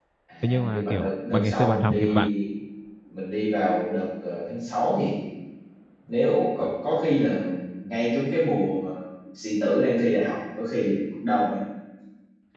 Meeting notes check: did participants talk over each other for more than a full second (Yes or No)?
Yes